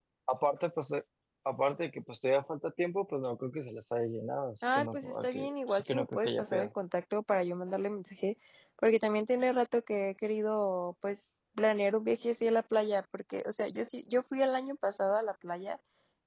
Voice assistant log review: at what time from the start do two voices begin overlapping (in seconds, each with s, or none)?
4.6 s